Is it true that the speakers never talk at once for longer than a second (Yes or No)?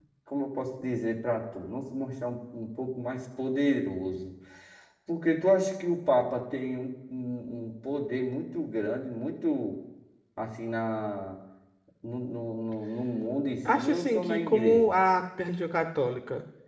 No